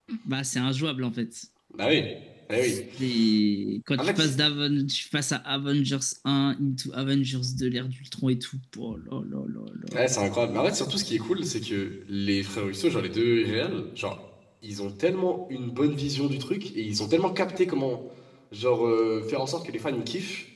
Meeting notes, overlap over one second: none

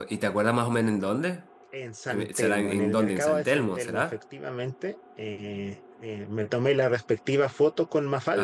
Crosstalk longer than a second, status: present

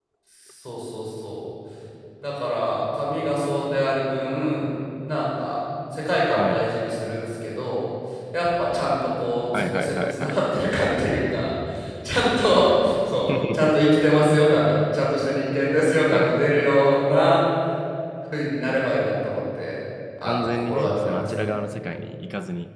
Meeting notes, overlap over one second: present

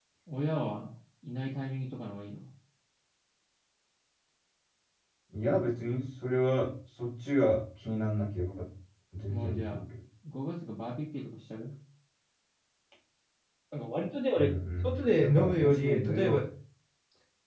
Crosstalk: present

